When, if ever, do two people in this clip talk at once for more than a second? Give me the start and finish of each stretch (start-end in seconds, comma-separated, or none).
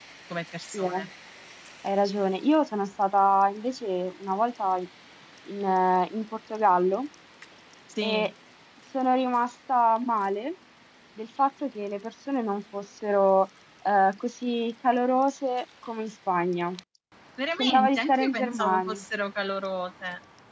17.6-19.0